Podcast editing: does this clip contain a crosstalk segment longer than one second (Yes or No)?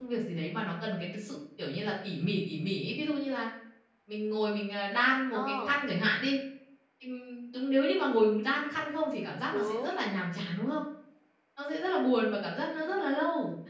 No